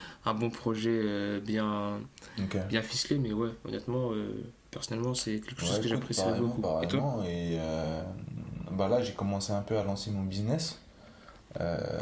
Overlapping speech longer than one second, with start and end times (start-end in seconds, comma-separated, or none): 5.6-7.0